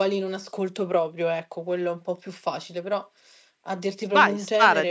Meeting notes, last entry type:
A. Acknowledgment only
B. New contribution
B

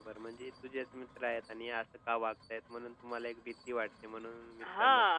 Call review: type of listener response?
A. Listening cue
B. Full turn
B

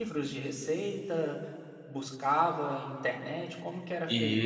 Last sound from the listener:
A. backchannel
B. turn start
B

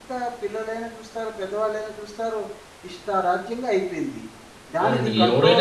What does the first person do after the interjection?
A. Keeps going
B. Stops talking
B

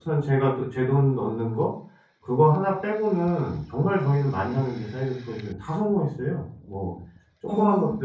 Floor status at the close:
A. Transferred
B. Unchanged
B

